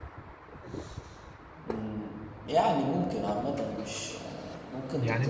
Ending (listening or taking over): taking over